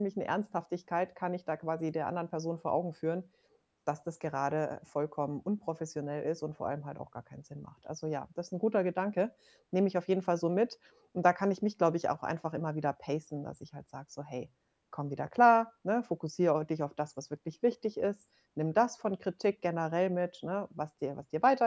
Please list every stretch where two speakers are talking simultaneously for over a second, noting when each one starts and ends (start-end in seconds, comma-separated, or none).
none